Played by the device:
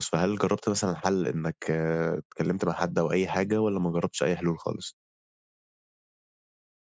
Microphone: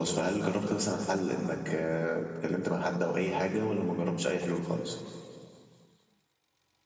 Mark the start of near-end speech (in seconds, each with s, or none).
none